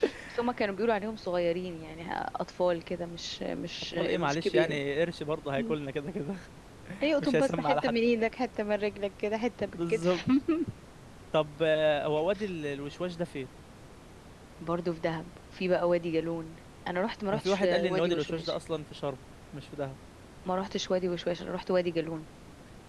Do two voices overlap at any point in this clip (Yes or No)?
Yes